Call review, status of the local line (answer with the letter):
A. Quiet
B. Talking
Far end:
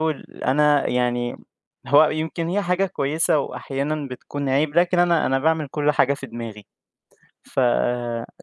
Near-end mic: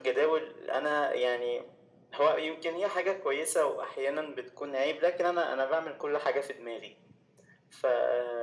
A